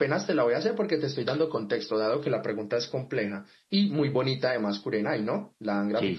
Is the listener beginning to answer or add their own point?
Yes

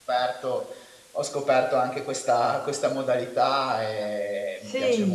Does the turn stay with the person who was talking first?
No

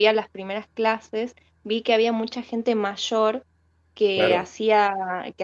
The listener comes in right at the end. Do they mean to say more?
No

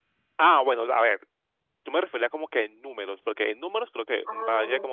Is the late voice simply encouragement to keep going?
Yes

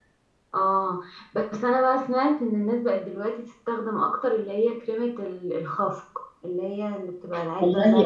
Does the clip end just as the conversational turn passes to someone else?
Yes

